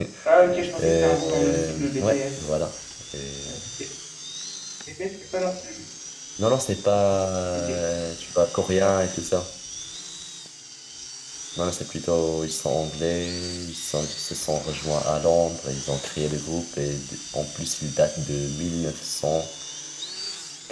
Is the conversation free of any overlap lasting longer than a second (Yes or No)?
No